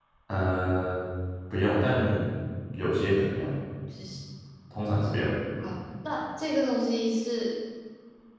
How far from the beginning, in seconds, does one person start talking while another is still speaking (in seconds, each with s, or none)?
none